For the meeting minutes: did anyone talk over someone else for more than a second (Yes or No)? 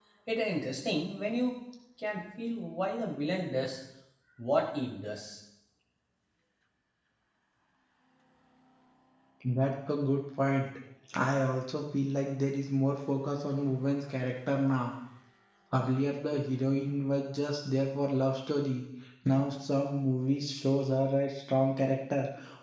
No